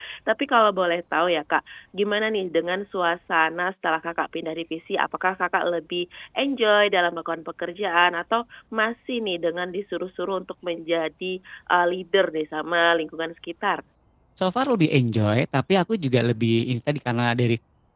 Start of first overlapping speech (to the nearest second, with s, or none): none